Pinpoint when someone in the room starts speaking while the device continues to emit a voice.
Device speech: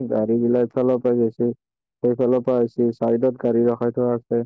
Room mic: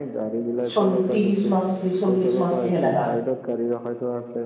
1 s

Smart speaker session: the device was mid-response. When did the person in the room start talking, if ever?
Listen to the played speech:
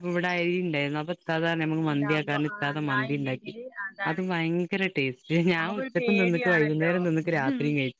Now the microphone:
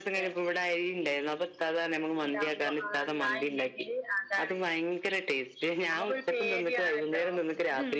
none

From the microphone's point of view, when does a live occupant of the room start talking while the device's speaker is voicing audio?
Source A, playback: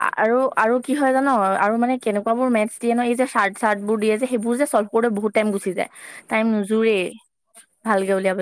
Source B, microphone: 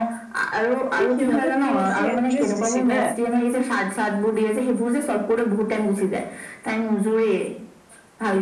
1 s

